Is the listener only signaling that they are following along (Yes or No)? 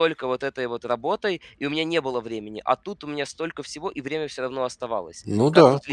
No